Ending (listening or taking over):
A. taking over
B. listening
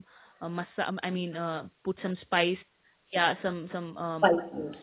B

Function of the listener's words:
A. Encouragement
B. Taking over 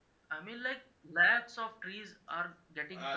B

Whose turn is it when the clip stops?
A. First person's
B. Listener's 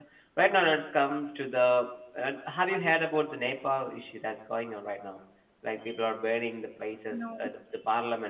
A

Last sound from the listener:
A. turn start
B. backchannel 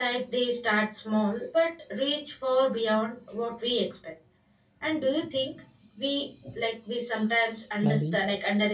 B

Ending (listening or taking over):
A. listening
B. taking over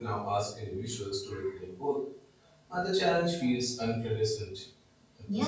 B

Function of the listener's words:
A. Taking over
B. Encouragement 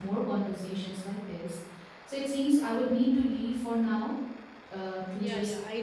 A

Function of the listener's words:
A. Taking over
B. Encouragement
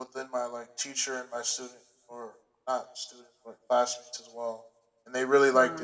B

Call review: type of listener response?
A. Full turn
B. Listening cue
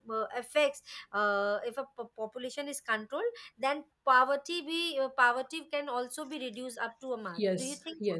A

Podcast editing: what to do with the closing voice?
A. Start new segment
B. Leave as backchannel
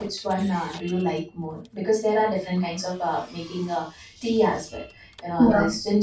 B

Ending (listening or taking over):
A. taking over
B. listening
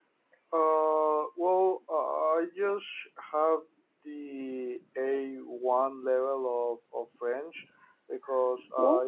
B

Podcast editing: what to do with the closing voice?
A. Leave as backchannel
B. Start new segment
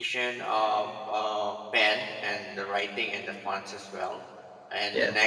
A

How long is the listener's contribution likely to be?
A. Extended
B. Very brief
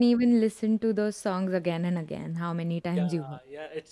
A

